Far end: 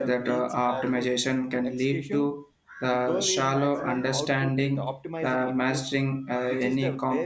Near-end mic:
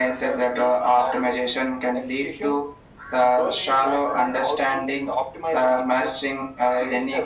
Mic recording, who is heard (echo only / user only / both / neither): echo only